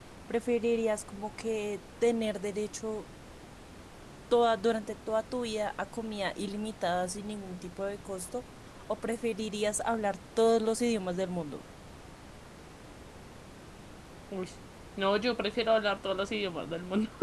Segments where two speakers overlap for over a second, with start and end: none

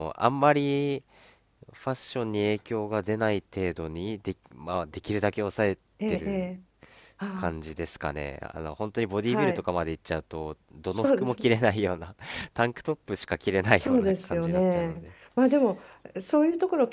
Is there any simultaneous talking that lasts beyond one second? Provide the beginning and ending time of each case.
13.7-15.0

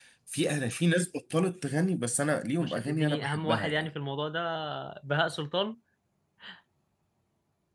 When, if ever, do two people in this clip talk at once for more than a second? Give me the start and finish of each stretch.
2.6-3.9

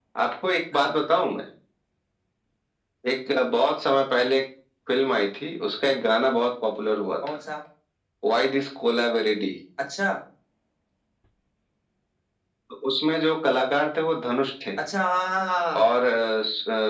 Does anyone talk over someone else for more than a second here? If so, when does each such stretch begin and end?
none

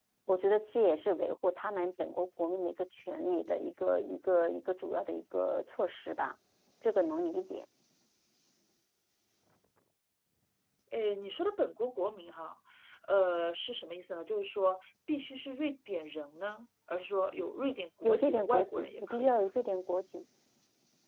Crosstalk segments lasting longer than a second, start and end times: 18.0-19.3

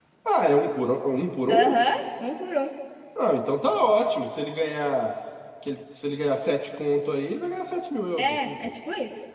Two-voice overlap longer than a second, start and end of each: none

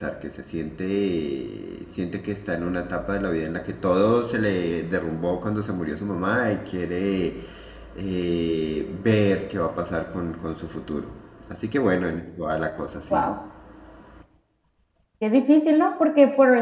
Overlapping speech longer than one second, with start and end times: none

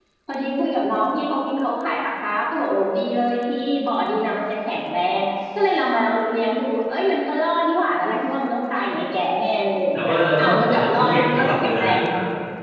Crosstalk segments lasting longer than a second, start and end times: 9.9-12.0

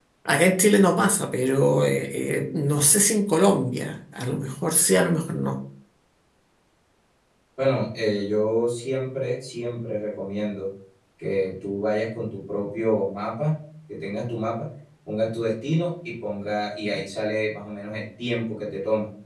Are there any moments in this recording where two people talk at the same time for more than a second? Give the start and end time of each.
none

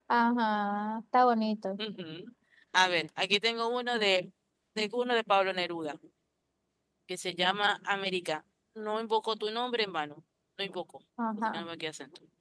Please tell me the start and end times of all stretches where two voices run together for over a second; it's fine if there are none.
none

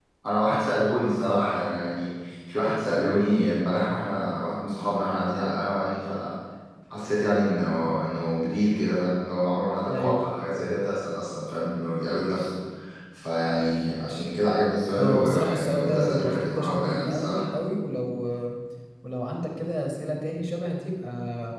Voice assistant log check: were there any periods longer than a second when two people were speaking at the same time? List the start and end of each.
15.0-17.4

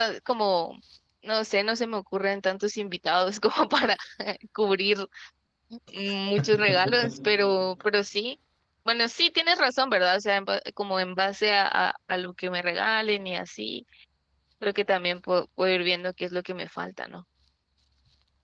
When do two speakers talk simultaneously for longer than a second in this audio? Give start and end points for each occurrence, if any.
none

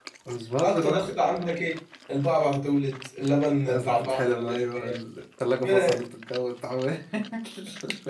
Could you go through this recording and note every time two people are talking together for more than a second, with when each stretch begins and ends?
3.5-4.9

